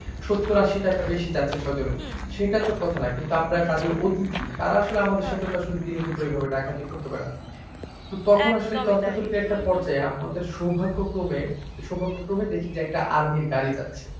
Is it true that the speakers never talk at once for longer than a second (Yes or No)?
No